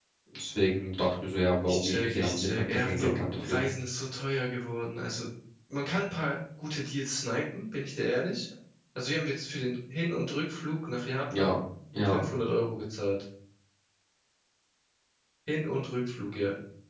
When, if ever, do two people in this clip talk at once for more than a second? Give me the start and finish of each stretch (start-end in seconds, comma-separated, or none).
1.6-3.6